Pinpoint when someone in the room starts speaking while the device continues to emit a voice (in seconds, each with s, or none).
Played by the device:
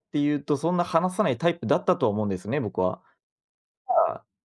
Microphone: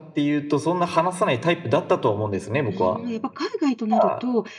2.7 s